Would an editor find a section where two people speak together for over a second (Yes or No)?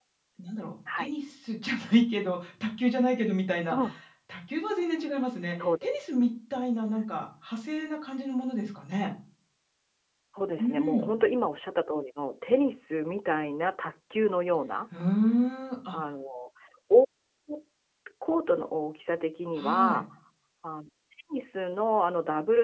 No